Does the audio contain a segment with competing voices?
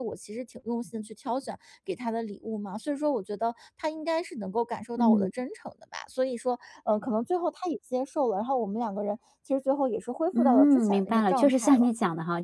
Yes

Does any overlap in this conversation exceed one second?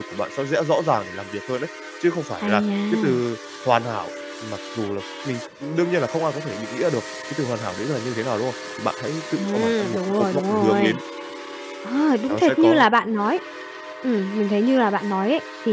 Yes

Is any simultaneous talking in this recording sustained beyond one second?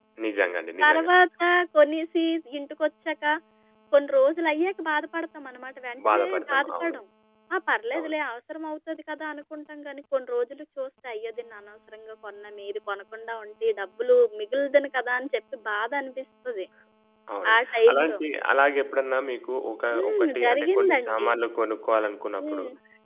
Yes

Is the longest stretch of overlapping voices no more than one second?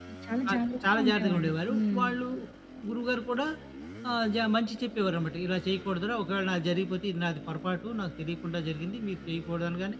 No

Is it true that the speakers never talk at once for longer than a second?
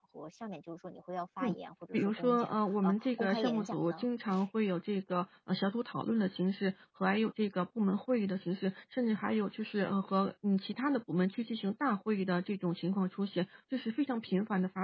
No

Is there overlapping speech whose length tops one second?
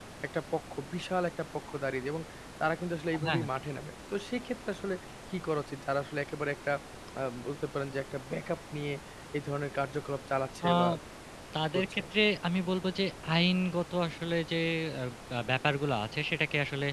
No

